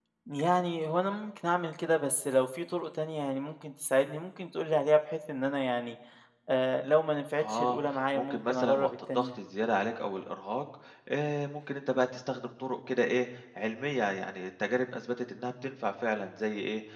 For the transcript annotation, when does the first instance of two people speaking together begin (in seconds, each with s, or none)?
7.4 s